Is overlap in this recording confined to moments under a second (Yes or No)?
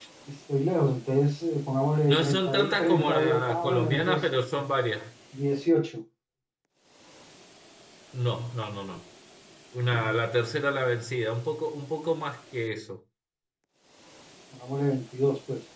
No